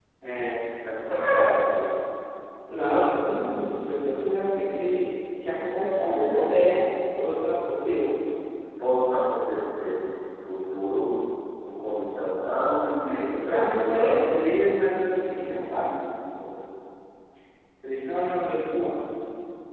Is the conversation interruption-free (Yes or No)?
No